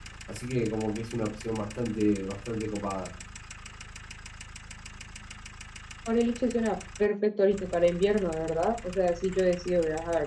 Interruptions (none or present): none